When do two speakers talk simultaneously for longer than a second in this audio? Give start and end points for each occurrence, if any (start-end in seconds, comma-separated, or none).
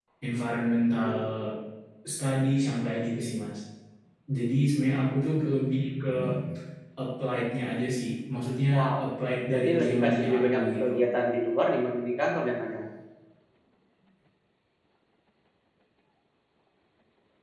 9.5-10.9